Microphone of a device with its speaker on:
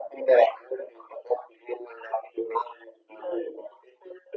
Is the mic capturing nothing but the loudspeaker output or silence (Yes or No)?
Yes